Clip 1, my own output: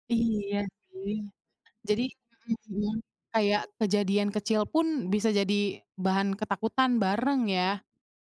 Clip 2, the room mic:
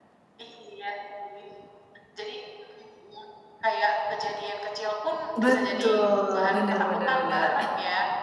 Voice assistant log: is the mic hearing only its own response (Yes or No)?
No